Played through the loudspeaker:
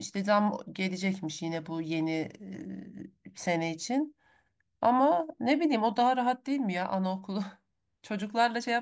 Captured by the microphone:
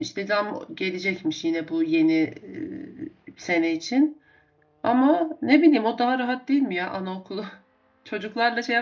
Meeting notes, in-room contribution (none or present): none